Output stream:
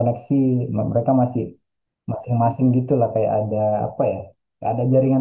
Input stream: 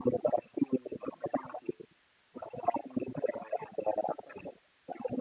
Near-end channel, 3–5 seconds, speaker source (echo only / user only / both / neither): echo only